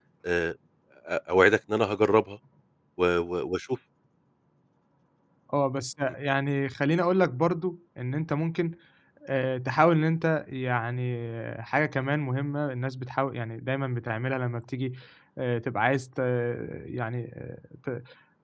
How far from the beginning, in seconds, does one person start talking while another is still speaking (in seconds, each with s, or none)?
none